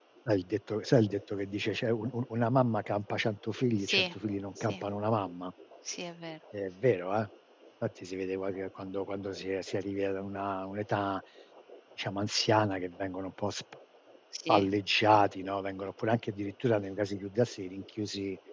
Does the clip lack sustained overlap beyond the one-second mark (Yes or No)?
Yes